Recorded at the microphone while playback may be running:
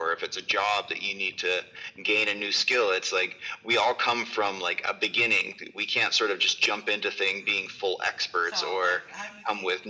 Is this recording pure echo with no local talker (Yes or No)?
No